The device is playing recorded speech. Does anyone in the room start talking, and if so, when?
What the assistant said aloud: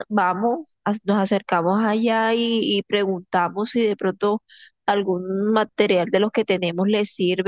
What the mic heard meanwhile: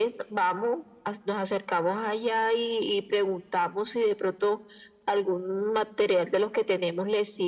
none

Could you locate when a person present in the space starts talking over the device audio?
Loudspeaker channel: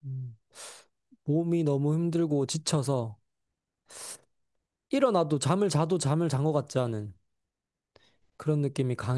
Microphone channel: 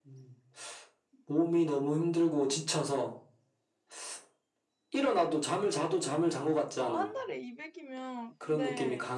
6.8 s

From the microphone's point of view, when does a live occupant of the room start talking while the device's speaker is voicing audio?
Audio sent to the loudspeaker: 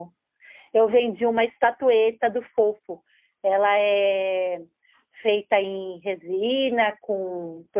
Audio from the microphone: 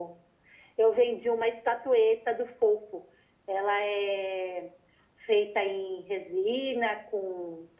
none

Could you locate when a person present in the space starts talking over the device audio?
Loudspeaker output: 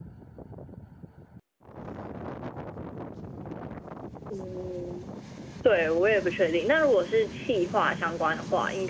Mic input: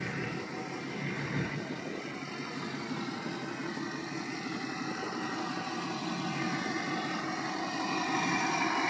none

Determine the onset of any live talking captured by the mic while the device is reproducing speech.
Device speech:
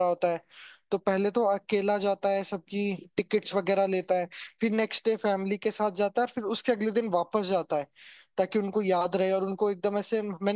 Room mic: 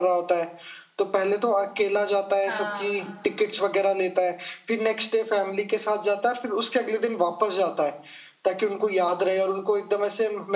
2.5 s

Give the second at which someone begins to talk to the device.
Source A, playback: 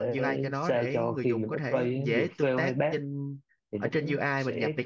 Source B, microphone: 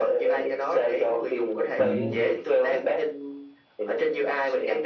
1.8 s

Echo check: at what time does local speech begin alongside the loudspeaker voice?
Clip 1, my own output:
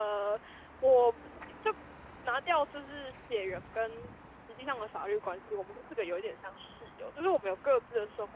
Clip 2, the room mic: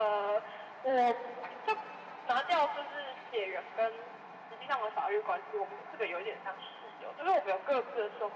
none

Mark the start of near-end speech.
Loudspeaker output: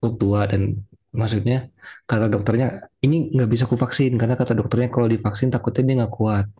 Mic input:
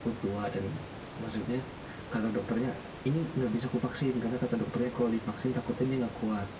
none

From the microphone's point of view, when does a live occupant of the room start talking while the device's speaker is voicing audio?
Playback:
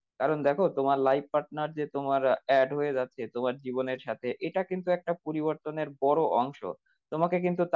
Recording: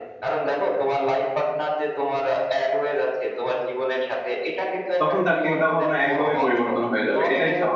5.0 s

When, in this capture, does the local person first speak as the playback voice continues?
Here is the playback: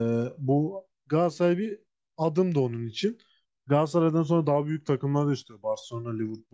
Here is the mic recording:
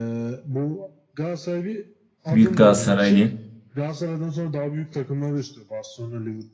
2.3 s

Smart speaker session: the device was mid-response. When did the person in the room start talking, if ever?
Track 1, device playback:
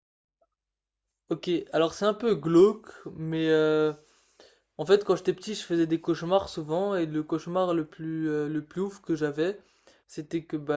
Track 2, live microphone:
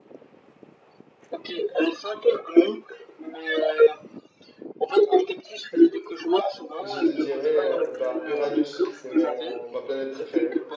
6.8 s

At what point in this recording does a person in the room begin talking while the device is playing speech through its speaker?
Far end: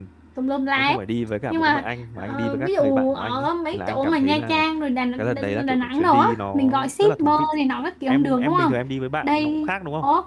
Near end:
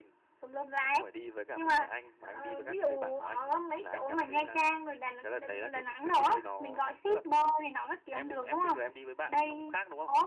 none

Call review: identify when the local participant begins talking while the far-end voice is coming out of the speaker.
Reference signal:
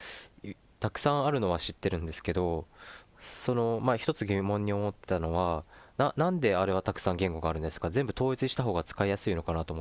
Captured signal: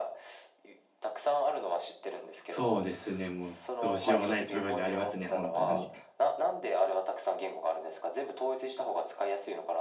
2.4 s

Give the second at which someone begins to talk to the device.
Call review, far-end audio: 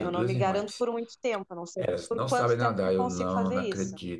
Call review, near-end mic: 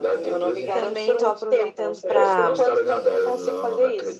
0.7 s

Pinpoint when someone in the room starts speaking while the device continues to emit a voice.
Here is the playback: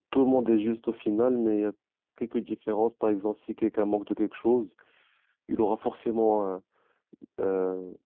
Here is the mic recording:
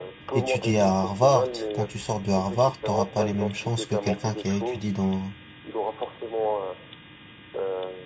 0.3 s

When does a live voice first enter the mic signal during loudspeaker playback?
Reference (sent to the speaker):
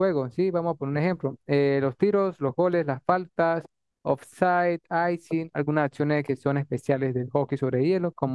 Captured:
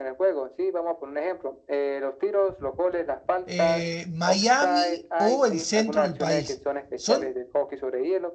3.5 s

